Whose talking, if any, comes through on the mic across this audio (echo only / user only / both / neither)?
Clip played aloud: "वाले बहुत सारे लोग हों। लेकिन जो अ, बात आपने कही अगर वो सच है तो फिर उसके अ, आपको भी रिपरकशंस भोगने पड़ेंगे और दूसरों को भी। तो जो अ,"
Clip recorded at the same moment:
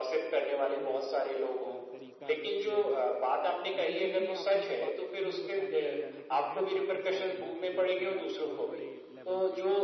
both